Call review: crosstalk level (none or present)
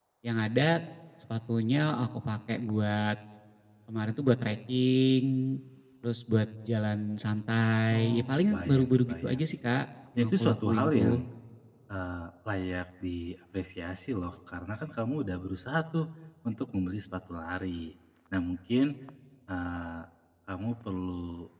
present